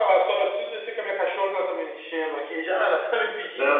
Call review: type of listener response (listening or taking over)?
listening